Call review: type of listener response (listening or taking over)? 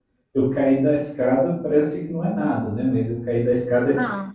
taking over